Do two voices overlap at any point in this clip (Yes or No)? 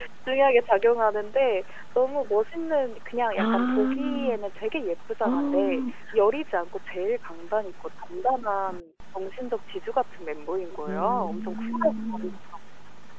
Yes